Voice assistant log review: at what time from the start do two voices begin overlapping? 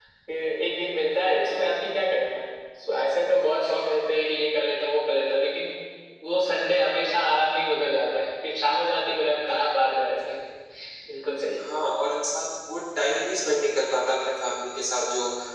none

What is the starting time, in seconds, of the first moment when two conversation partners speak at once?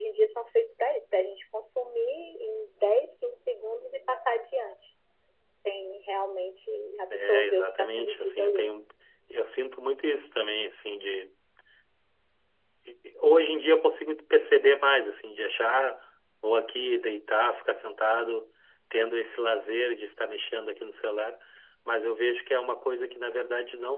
7.1 s

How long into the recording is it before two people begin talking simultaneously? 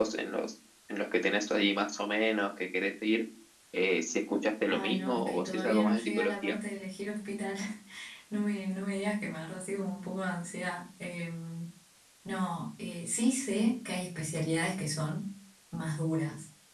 4.7 s

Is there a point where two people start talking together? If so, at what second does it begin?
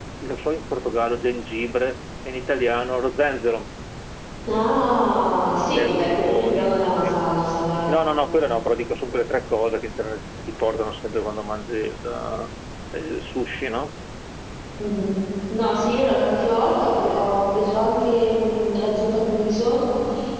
5.7 s

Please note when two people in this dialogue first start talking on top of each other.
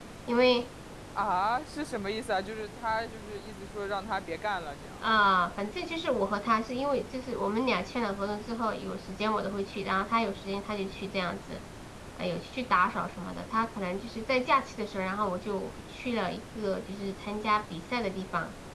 none

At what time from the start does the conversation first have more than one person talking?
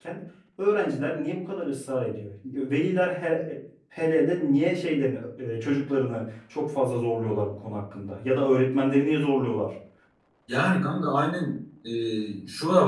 none

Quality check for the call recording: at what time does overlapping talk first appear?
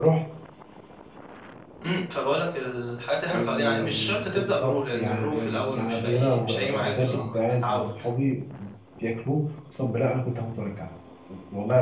3.3 s

